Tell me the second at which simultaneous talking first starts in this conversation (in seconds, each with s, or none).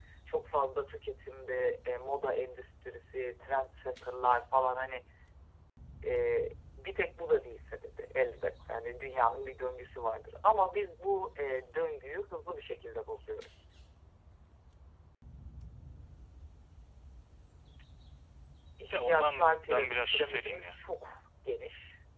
18.9 s